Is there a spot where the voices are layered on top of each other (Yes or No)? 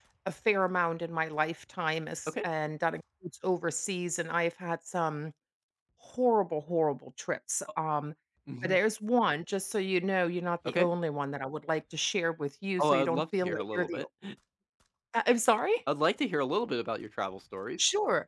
Yes